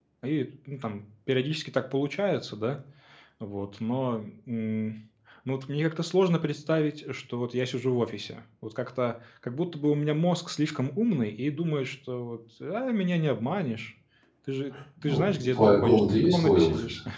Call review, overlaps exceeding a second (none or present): present